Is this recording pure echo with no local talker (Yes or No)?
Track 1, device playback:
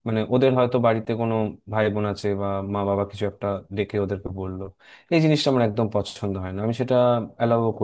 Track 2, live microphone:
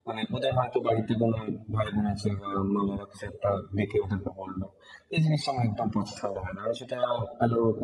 Yes